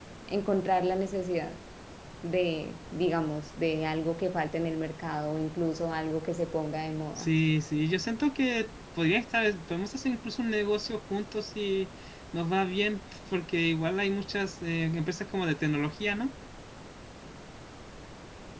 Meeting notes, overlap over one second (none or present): none